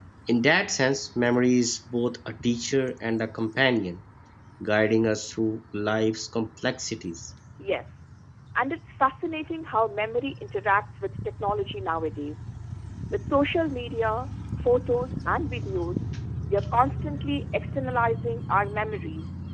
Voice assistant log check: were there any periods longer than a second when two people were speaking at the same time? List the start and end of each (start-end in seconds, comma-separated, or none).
none